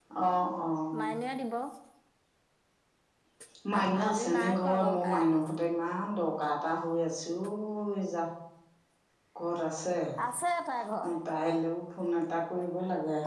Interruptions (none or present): present